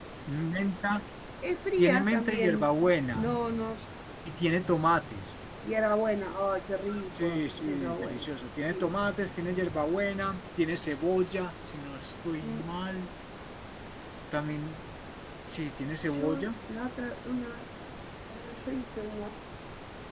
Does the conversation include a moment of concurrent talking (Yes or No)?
Yes